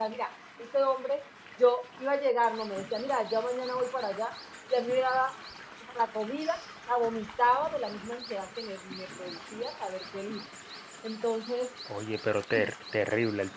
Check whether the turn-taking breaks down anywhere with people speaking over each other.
No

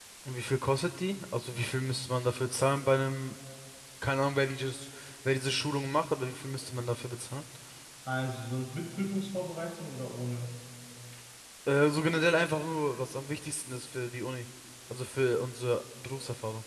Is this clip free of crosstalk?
Yes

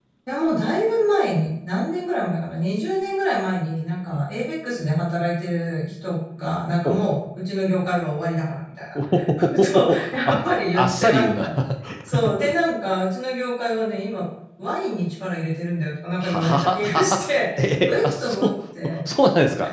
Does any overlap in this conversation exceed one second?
Yes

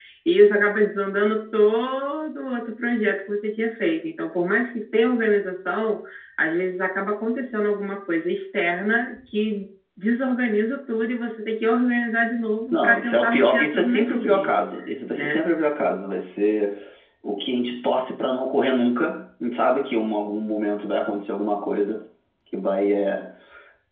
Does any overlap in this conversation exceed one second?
Yes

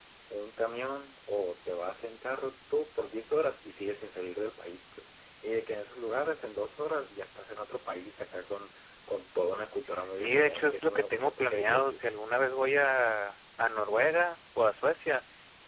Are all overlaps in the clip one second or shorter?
No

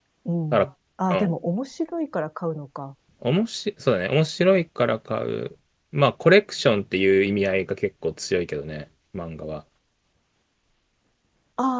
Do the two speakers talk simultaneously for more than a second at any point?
No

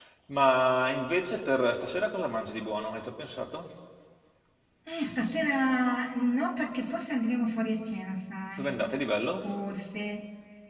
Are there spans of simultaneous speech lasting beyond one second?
No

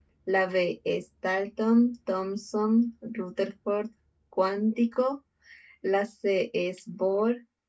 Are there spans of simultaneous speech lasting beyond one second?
No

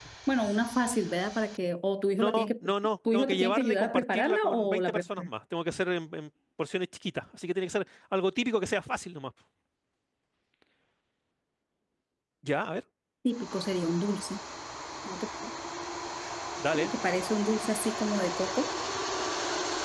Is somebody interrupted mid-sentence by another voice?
Yes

